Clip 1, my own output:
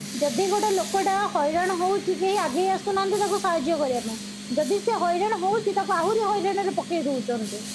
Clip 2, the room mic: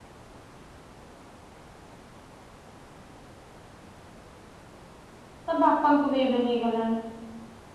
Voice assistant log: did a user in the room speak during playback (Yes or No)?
Yes